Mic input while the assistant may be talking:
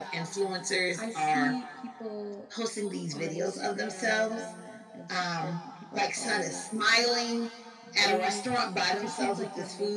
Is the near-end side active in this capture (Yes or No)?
Yes